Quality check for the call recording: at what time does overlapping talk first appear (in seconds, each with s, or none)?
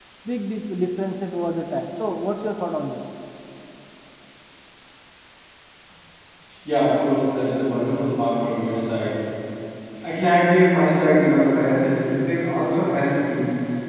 none